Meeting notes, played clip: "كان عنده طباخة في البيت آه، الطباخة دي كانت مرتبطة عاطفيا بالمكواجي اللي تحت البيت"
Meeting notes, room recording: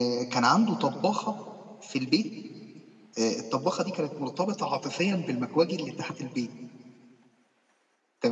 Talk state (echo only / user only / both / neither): echo only